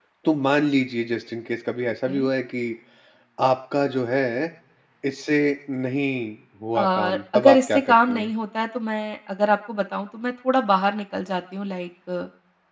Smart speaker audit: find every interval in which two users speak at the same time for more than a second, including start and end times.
6.8-8.3

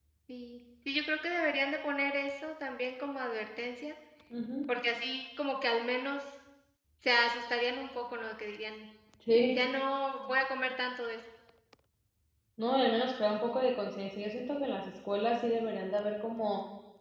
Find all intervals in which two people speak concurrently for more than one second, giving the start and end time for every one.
none

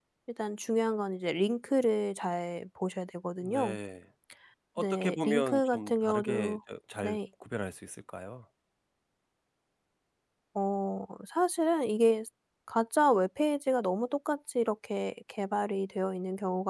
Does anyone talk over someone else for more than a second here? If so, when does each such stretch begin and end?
4.8-6.6

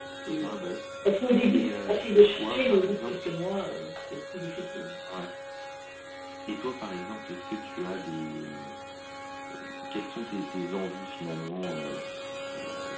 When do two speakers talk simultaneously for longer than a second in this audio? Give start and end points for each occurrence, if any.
1.5-3.2

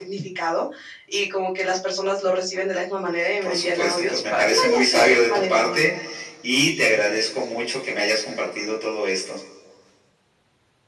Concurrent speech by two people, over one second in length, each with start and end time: 3.4-5.8

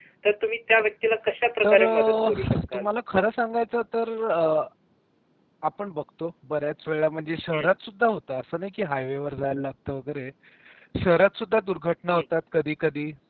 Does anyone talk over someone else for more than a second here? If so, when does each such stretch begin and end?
1.6-2.9

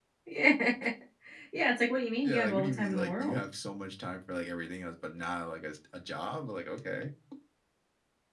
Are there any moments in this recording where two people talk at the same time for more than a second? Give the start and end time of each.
2.2-3.4

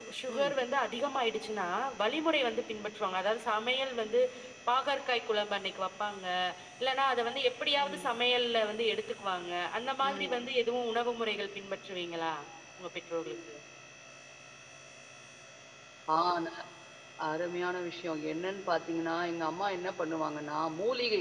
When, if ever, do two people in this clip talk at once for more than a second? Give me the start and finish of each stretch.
none

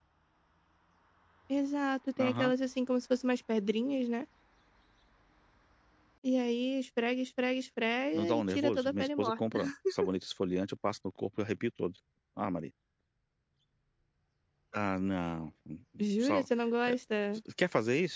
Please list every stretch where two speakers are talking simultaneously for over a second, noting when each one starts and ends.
8.2-9.6

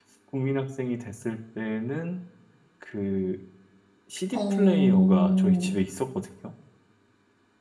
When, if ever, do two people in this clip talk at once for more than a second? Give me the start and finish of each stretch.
4.3-5.8

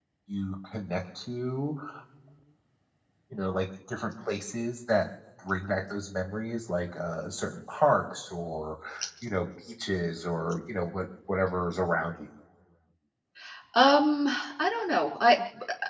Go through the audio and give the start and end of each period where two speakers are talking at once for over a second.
none

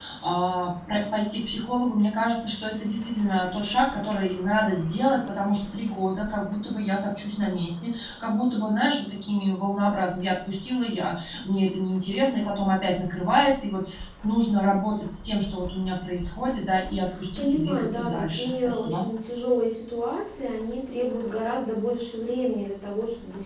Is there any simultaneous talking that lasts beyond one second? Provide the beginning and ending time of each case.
17.4-19.0

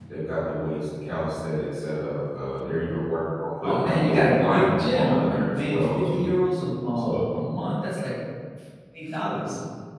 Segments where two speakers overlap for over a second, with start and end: 3.6-6.3

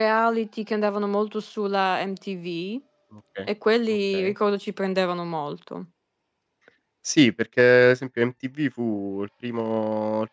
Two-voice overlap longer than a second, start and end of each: none

